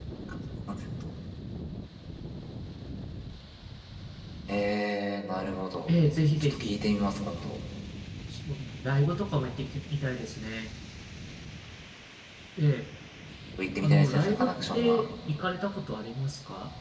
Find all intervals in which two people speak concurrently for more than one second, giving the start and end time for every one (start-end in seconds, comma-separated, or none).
13.8-15.1